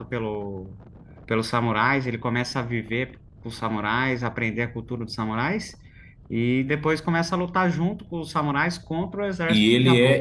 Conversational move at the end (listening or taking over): taking over